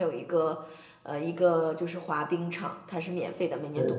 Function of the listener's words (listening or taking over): listening